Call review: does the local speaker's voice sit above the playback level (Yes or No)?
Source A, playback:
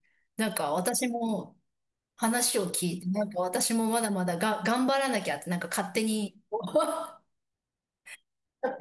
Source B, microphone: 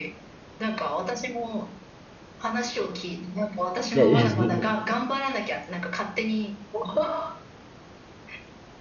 Yes